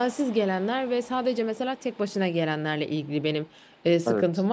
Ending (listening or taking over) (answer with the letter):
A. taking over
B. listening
B